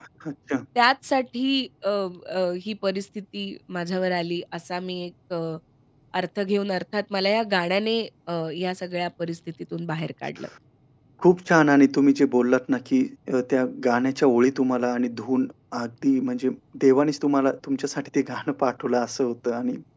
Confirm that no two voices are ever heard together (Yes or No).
Yes